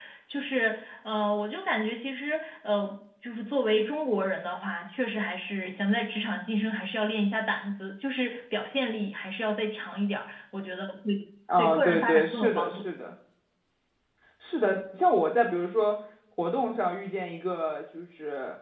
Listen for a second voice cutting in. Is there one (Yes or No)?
Yes